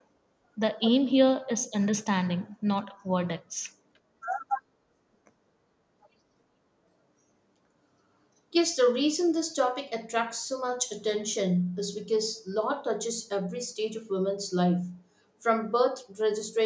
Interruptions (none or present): none